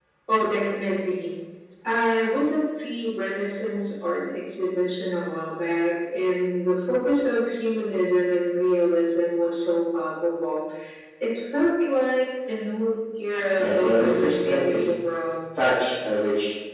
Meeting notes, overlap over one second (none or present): present